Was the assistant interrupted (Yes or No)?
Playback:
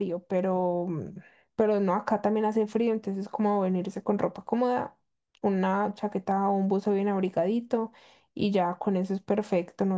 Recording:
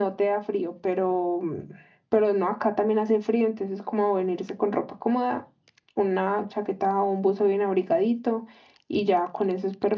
No